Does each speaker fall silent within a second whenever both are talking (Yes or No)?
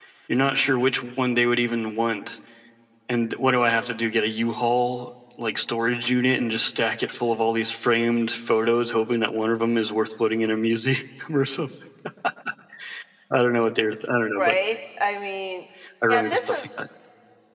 Yes